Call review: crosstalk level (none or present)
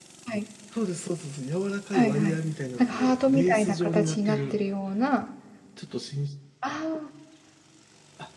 present